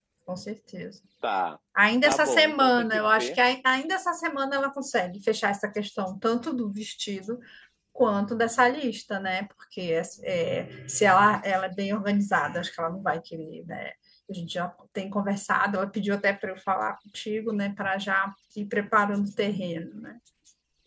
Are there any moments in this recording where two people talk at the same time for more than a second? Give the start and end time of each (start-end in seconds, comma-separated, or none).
2.0-3.4